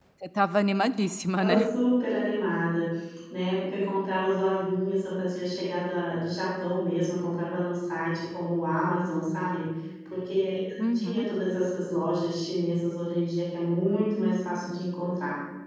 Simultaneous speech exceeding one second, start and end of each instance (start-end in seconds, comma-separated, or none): none